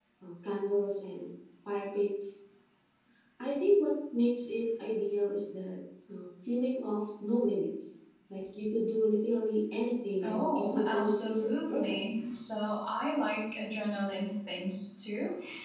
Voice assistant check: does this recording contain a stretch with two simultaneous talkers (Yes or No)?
Yes